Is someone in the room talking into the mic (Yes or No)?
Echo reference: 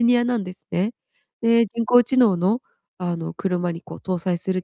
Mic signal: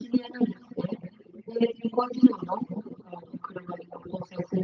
No